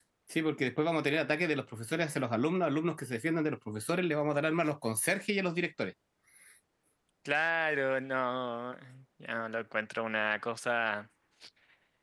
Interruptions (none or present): none